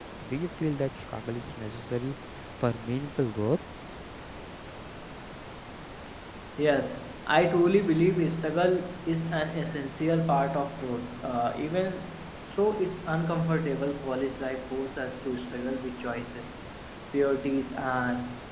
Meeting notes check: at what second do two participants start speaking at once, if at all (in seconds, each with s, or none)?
none